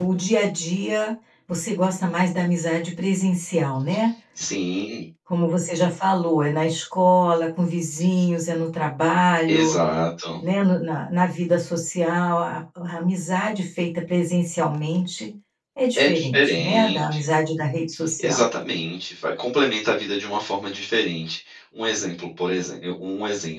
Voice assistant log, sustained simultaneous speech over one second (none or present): present